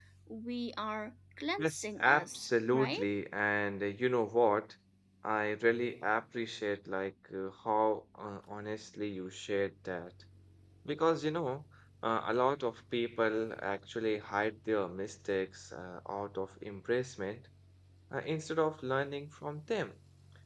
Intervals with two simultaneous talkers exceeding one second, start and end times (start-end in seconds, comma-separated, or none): 1.6-3.0